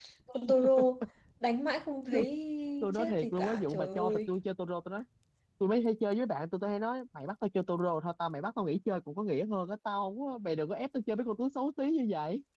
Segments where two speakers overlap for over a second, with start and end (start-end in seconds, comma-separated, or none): 2.9-4.3